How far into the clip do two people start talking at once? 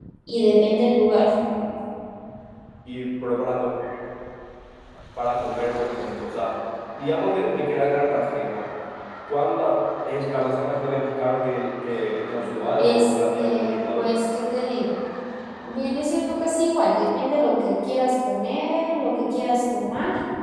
12.8 s

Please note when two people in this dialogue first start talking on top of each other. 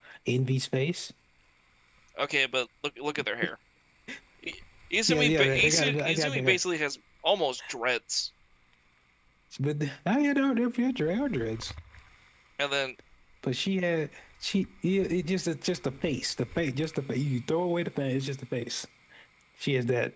5.1 s

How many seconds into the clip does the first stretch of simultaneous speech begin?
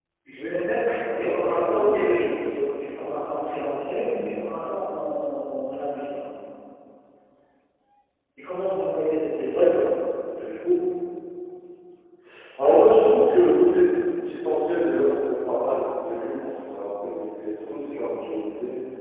1.0 s

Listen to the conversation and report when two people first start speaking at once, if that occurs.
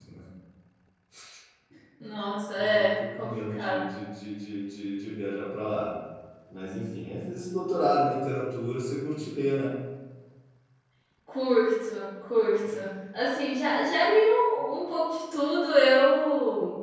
2.6 s

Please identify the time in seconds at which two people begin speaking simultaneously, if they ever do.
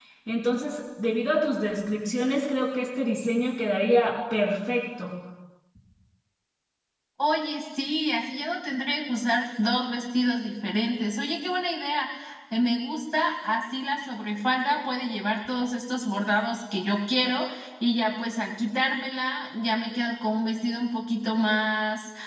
none

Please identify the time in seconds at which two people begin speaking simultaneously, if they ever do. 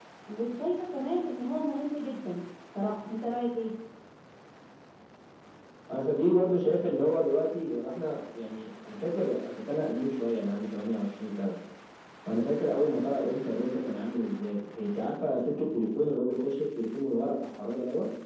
none

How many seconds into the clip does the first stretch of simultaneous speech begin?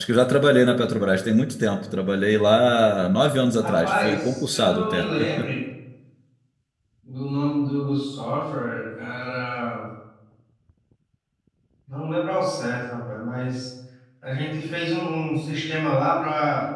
3.6 s

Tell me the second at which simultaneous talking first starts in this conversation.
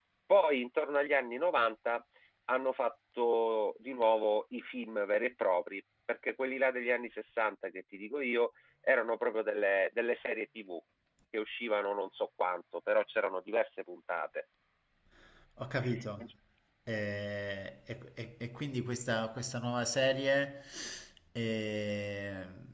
none

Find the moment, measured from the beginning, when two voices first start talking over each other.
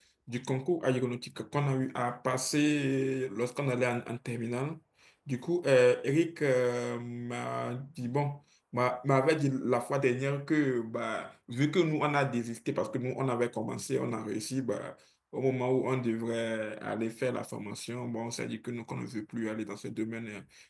none

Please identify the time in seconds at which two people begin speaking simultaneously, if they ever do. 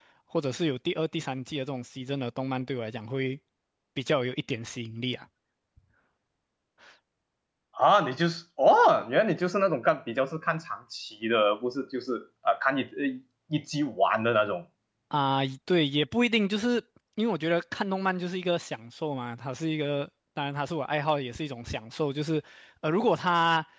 none

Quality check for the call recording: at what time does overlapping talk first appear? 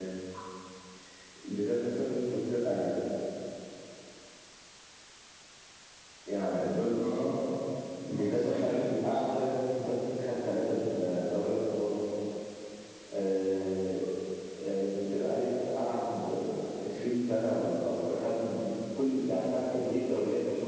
8.1 s

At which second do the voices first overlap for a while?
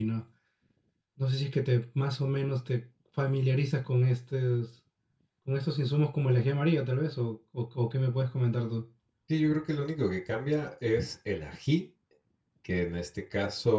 none

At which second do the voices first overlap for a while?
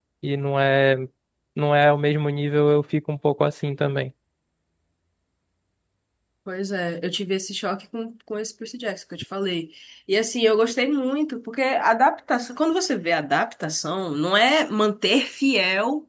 none

